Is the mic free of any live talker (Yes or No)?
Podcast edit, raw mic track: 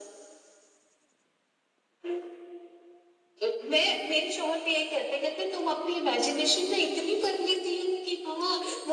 Yes